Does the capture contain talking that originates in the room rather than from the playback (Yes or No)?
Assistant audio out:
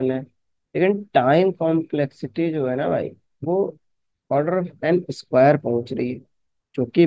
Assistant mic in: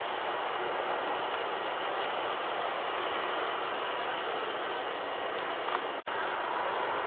No